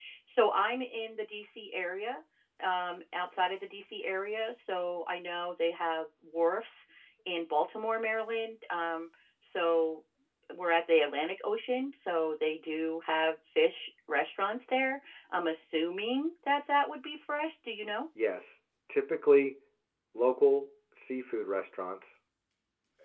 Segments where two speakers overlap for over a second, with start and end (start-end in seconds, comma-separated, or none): none